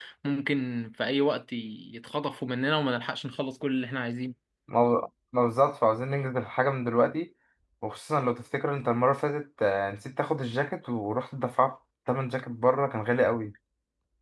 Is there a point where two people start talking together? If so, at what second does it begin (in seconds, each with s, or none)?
none